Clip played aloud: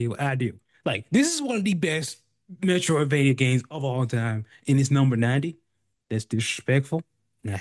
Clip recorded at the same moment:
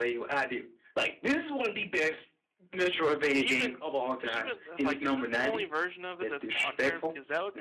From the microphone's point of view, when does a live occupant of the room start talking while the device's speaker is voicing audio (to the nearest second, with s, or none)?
3 s